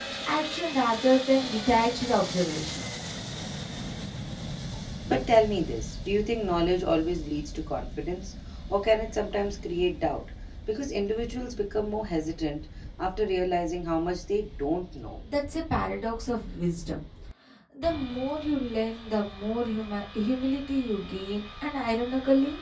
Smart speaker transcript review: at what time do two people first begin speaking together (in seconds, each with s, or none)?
none